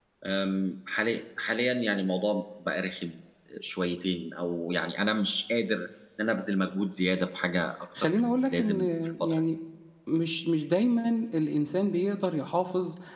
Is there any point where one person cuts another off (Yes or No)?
Yes